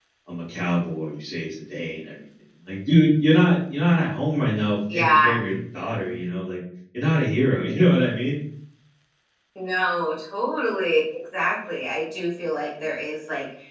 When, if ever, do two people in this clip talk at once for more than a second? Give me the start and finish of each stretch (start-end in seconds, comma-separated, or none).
none